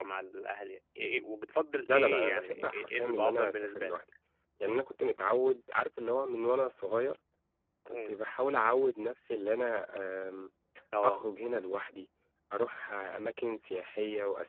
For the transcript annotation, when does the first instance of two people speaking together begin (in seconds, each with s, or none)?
1.9 s